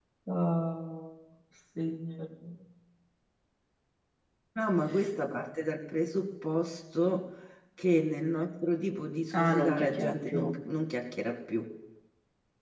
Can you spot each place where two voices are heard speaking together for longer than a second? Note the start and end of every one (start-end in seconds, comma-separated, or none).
9.3-10.5